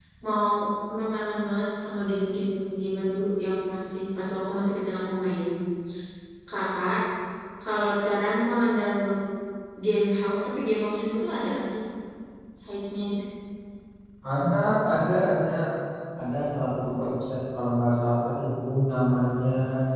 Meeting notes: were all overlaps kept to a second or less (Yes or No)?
Yes